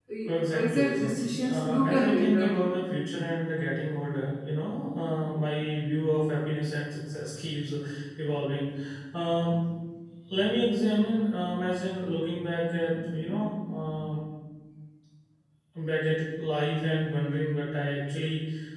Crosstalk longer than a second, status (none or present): present